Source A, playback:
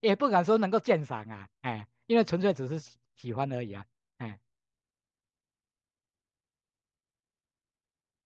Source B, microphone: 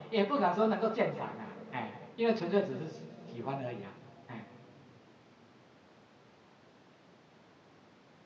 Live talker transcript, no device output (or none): none